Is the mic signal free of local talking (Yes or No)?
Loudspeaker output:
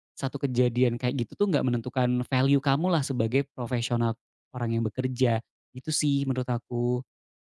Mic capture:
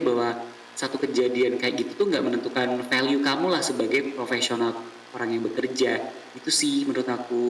Yes